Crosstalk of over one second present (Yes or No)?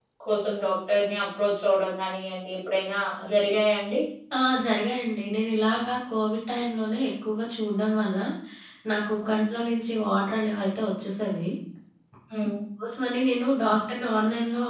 No